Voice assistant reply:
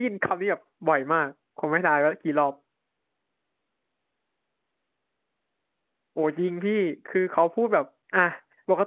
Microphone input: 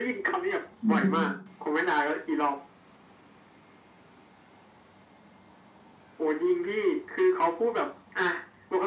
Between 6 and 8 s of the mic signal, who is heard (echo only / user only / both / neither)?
echo only